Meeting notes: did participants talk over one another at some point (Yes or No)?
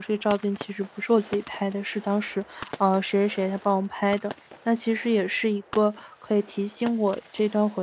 No